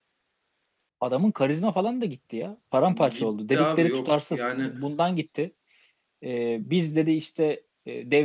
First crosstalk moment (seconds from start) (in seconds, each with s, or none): 2.9 s